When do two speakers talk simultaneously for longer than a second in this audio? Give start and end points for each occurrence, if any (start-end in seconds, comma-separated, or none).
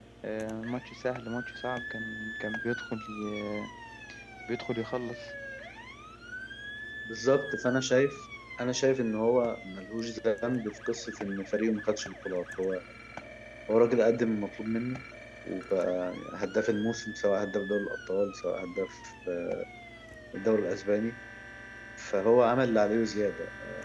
none